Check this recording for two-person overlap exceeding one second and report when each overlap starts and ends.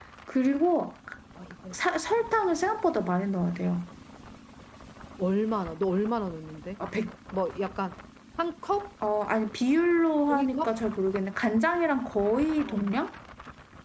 none

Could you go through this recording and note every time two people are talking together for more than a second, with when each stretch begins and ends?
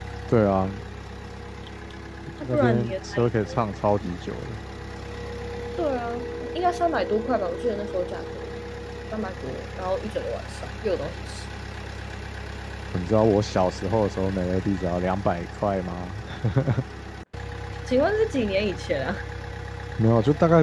2.4-3.6

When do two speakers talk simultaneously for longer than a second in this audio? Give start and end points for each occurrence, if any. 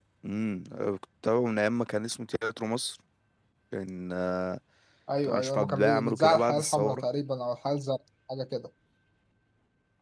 5.2-7.0

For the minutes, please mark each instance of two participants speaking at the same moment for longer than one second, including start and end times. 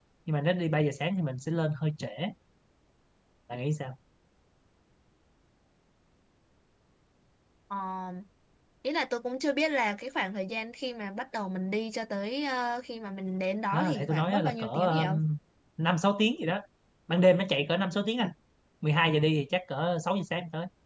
13.7-15.2

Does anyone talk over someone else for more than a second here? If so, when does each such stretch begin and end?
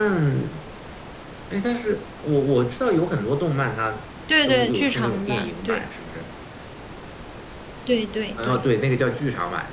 4.5-5.9

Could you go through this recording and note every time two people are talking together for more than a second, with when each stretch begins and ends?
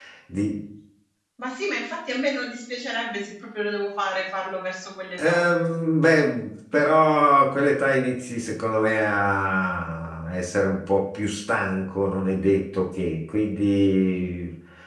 none

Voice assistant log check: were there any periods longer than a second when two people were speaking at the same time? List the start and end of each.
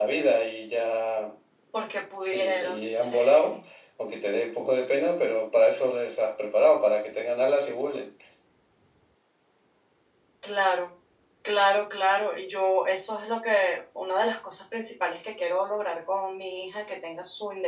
2.2-3.6

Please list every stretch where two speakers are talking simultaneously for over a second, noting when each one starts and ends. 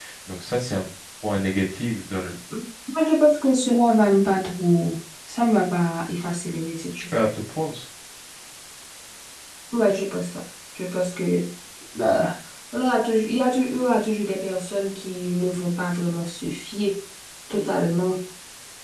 none

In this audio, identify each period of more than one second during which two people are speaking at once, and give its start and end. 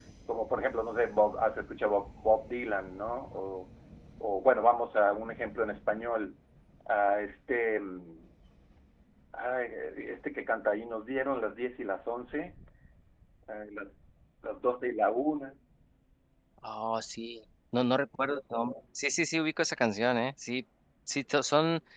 none

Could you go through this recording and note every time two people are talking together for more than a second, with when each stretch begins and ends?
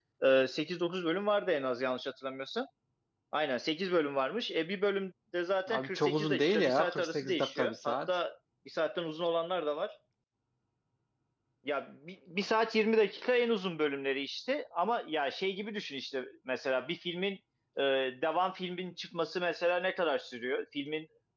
5.7-8.1

